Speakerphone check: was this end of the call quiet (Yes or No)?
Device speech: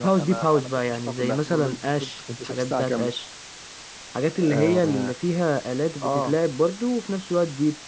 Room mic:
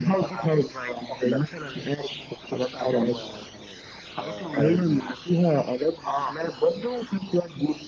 No